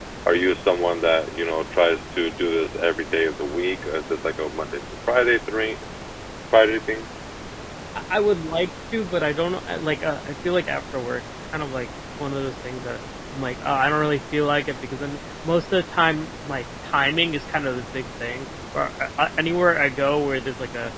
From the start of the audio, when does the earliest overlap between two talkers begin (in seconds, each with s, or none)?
none